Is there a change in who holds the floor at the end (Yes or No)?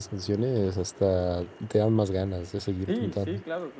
Yes